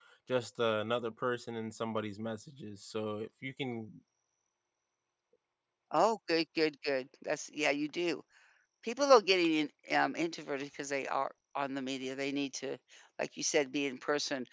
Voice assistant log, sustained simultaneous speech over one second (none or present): none